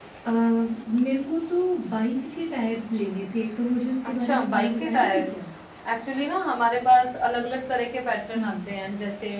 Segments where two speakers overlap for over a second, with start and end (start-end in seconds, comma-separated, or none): 4.0-5.3